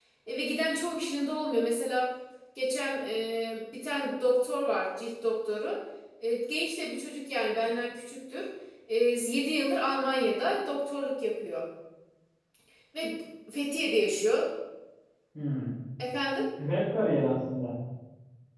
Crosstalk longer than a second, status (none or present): none